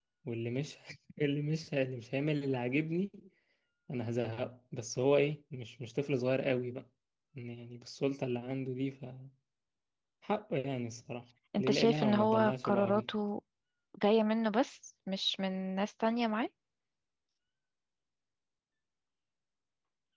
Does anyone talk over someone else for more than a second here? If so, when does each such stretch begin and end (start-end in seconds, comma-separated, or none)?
11.6-13.1